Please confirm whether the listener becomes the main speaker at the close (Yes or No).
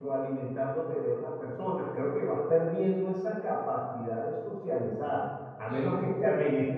No